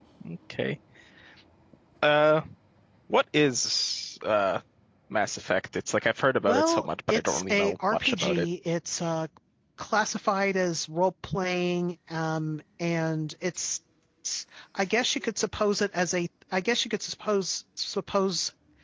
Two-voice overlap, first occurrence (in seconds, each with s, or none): 6.4 s